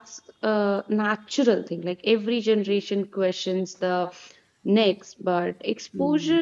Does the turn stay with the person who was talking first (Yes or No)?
Yes